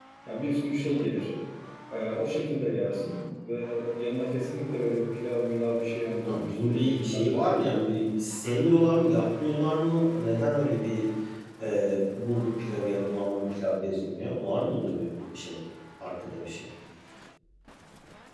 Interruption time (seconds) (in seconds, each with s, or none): 6.2 s